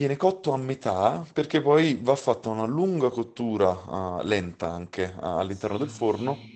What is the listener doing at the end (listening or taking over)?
taking over